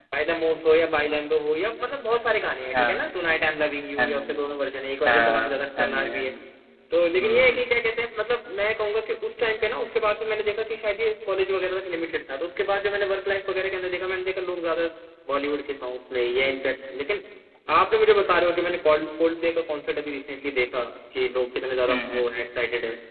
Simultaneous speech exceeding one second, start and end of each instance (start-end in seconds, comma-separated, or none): 5.1-6.3